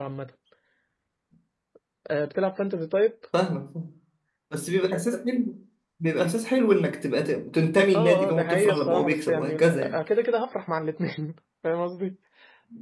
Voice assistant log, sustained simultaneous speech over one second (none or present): present